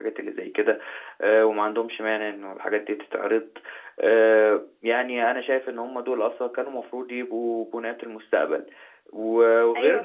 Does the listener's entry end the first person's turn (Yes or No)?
No